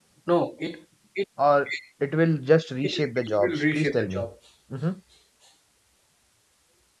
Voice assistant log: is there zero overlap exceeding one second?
No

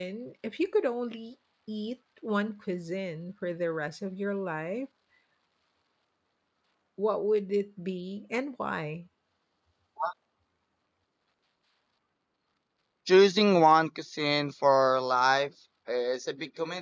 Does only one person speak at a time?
Yes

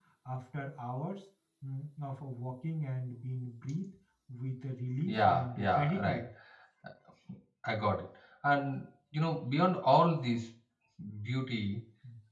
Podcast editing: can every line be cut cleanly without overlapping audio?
No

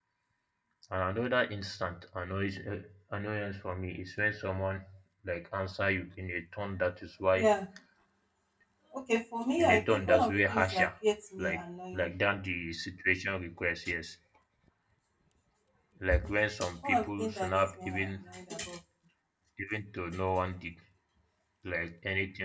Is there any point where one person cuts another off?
Yes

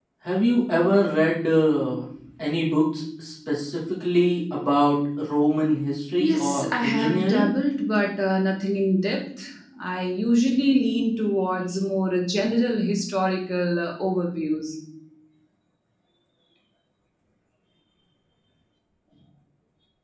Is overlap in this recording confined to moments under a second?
No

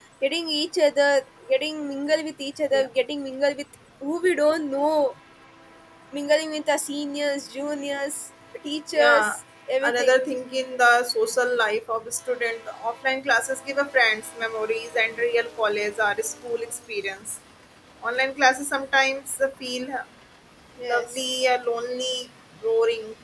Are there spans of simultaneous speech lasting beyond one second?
No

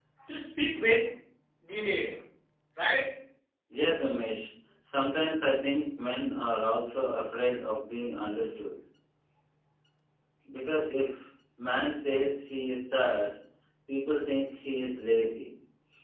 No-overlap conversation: Yes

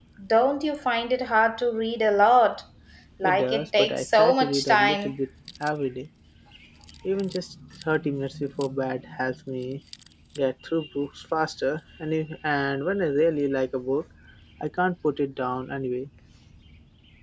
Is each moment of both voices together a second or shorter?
No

